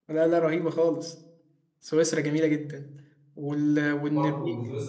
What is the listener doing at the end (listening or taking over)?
taking over